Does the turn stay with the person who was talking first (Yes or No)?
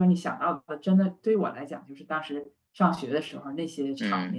No